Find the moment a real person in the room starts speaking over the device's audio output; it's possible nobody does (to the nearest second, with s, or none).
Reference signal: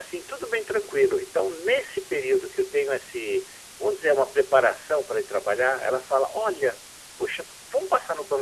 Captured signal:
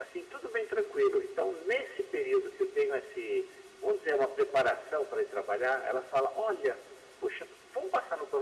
none